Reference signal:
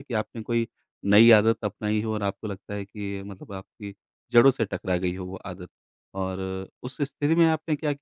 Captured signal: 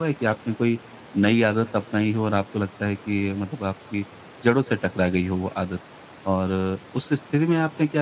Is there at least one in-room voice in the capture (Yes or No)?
No